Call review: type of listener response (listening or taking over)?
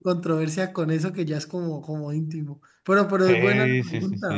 taking over